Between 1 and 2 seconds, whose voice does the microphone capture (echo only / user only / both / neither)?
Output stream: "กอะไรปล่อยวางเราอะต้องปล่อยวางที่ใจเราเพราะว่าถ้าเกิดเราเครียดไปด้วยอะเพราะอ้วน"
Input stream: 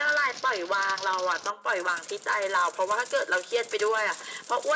echo only